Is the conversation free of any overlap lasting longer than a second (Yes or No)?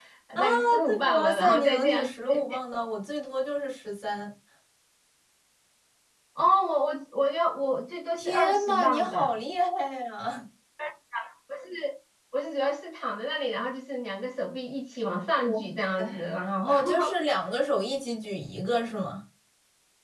No